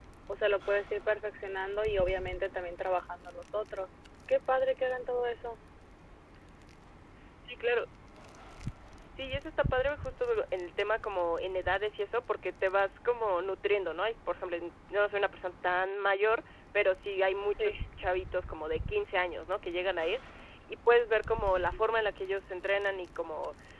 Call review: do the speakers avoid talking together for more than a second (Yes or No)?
Yes